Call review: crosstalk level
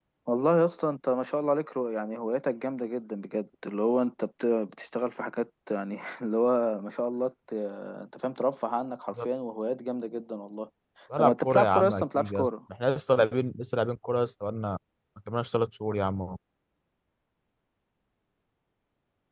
present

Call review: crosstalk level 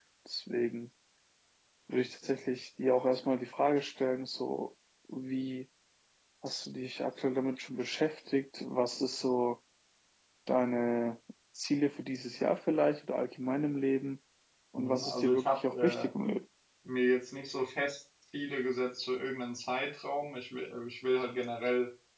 present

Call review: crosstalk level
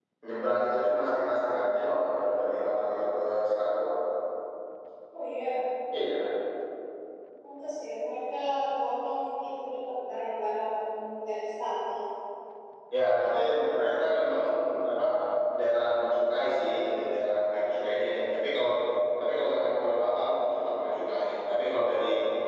none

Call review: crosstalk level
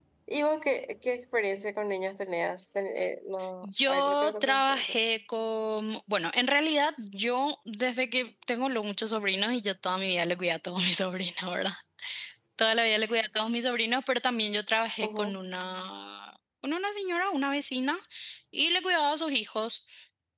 present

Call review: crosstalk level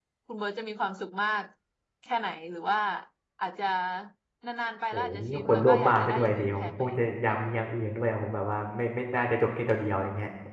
present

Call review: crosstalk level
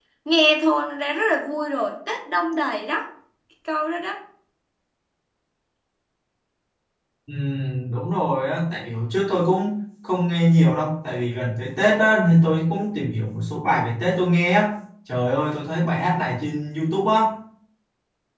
none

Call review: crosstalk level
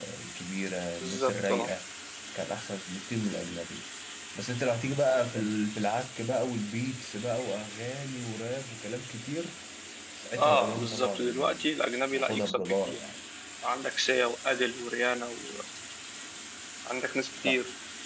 present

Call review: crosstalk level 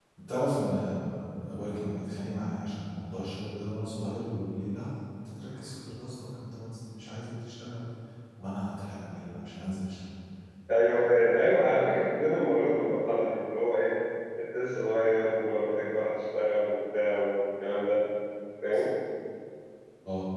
none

